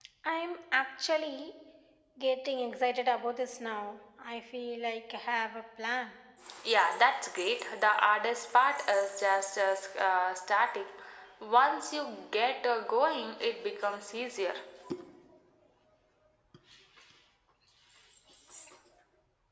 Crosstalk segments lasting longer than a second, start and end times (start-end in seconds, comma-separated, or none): none